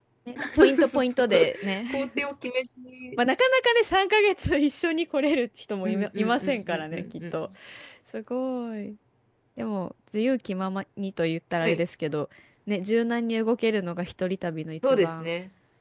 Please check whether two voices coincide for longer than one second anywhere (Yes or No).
Yes